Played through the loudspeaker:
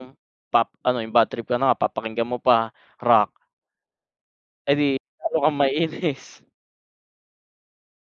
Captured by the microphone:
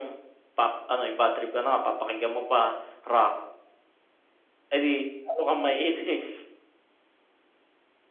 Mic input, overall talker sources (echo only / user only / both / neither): echo only